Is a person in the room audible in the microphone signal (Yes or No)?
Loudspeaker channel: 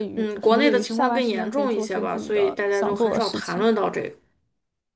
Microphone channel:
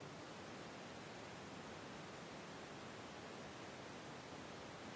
No